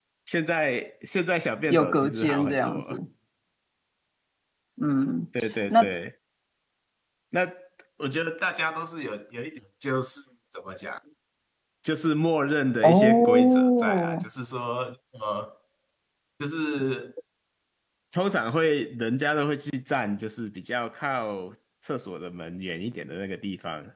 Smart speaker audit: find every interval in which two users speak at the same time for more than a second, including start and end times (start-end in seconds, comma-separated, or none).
1.7-3.0, 12.8-14.3